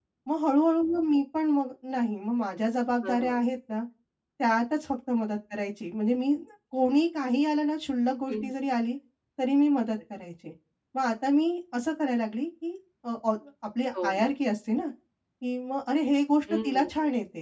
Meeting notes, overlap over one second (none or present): none